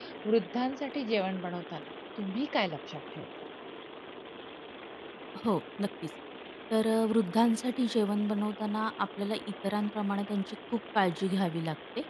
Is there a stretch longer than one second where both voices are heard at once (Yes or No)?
No